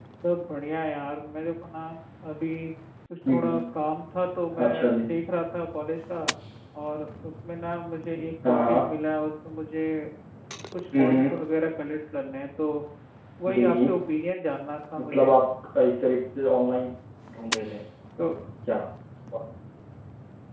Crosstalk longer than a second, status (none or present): none